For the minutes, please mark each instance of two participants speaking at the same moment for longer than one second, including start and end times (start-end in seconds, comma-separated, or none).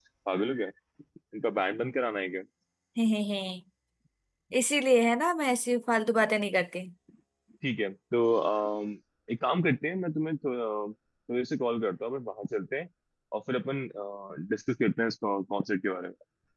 none